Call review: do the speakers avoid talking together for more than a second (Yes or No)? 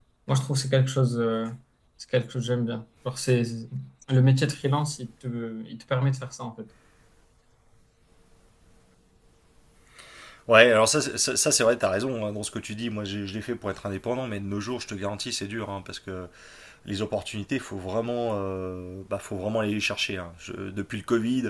Yes